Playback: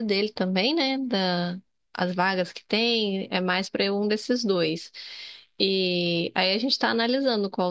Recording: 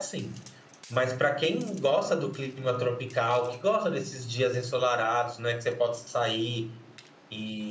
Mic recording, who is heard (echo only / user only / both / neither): user only